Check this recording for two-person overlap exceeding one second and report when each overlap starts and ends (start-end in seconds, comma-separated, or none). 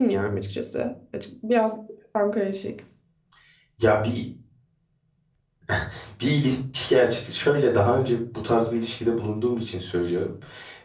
none